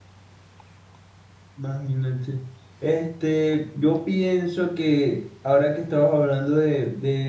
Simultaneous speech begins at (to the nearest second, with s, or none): none